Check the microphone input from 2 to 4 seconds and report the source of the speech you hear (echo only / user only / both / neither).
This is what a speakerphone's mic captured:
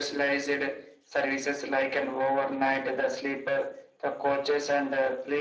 echo only